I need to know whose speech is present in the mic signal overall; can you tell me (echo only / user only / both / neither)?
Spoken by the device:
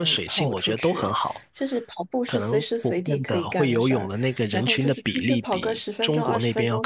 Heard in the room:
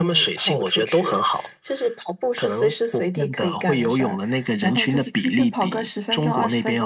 echo only